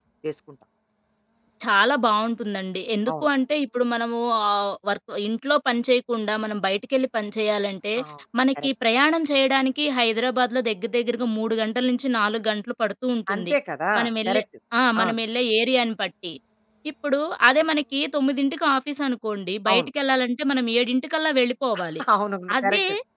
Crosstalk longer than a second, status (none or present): none